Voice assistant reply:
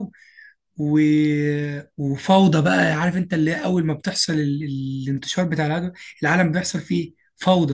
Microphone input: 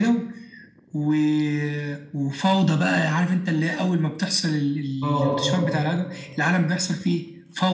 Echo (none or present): present